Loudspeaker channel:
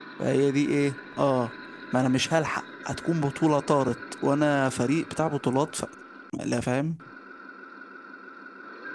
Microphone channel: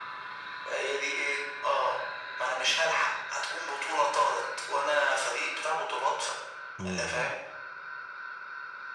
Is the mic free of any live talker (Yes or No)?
No